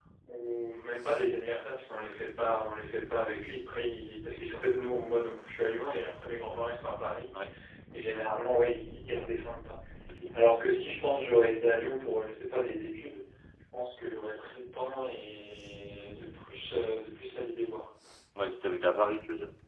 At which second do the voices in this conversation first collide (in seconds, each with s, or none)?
none